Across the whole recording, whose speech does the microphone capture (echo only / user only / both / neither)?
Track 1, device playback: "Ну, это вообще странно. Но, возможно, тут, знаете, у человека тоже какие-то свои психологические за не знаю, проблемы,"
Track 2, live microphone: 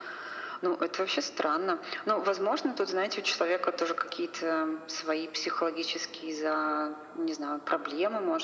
echo only